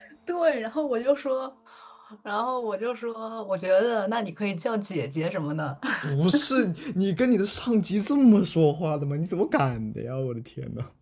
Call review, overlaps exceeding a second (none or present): none